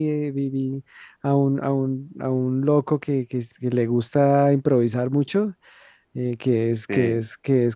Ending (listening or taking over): listening